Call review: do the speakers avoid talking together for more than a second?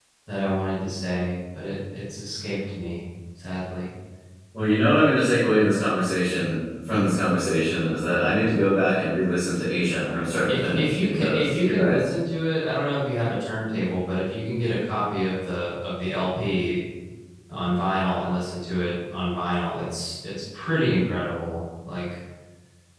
No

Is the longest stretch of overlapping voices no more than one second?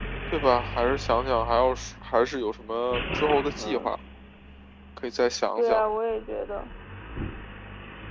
Yes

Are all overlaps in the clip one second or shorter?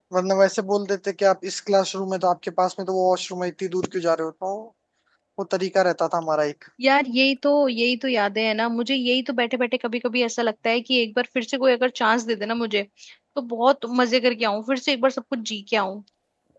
Yes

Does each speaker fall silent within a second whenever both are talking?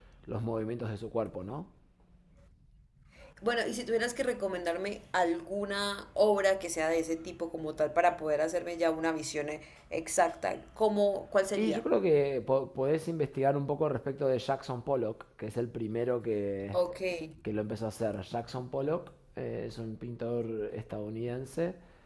Yes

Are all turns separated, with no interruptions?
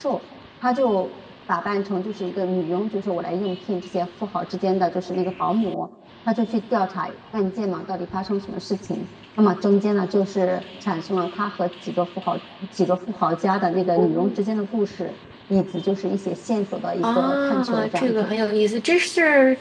No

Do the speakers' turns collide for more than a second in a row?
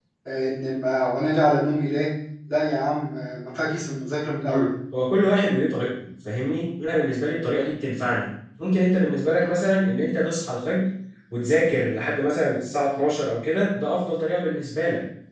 No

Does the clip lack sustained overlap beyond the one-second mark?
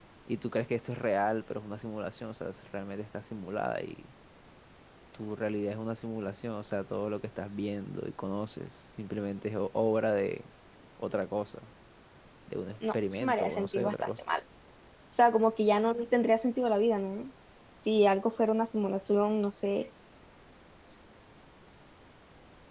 No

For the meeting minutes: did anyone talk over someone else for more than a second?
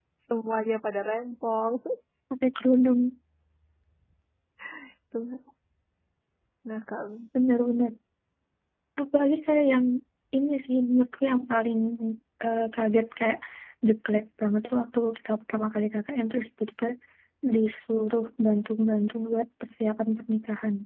No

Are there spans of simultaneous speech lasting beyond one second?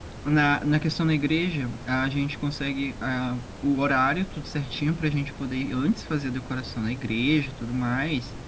No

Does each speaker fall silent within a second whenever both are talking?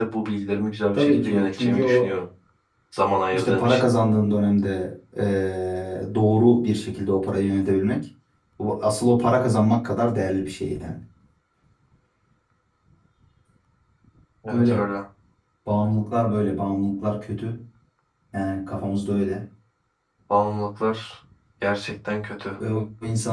No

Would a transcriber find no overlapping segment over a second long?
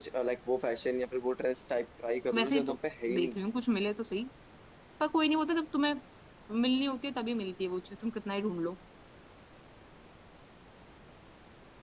Yes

